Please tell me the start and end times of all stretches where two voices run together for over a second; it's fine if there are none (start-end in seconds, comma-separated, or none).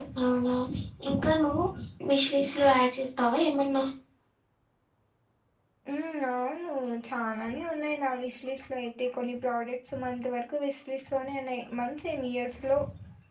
none